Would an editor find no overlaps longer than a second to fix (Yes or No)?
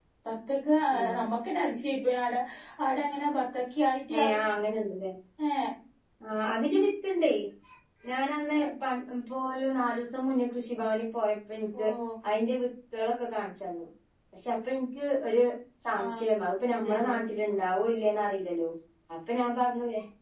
Yes